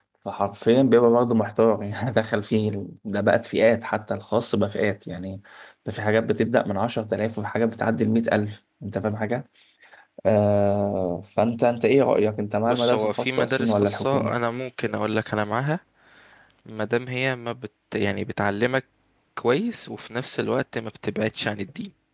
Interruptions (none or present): present